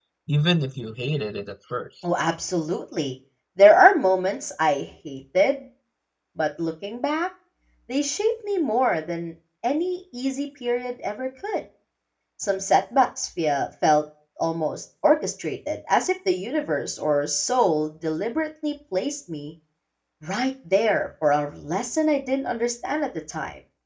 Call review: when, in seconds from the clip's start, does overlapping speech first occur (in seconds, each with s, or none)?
none